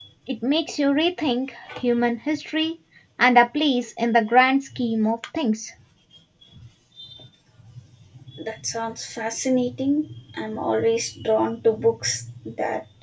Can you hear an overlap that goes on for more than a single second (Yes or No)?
No